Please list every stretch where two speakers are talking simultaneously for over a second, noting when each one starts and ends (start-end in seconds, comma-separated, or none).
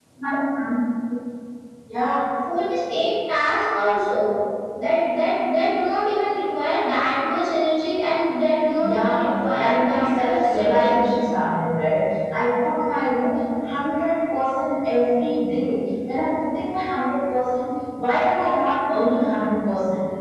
9.6-11.0